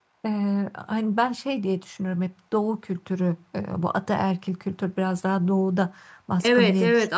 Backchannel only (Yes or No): No